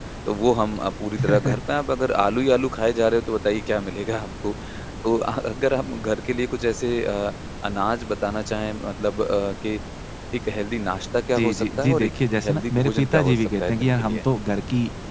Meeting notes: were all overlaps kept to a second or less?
No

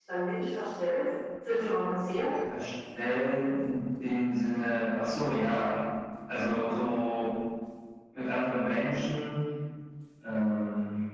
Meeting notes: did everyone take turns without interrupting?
Yes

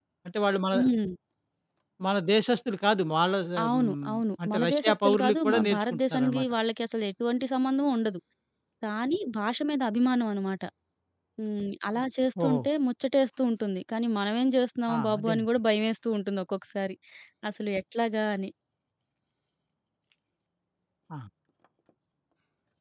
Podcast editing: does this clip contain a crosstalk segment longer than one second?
Yes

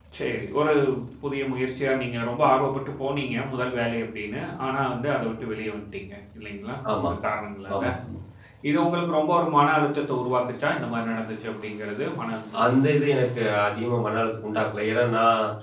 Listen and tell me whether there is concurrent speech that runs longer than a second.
No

